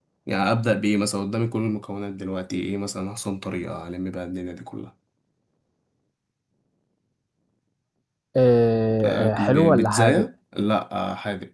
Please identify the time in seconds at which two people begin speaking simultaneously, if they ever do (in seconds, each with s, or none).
9.0 s